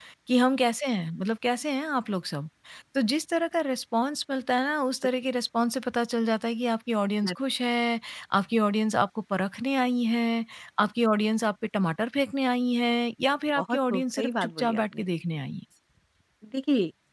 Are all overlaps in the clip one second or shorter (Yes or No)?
No